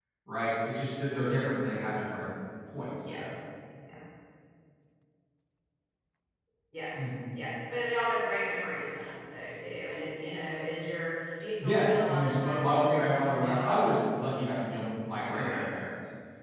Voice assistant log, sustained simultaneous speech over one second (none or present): present